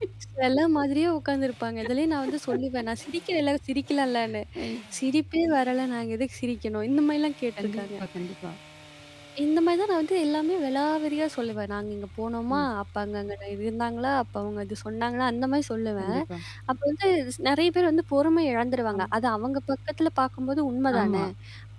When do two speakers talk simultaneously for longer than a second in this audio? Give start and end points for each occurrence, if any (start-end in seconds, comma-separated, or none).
none